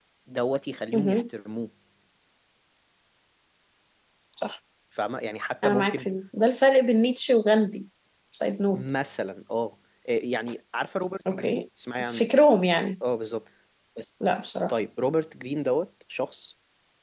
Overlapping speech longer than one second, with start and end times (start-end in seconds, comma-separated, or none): none